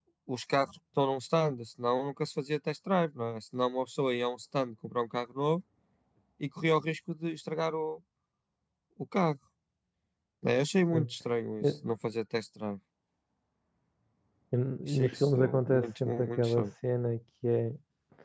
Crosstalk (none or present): present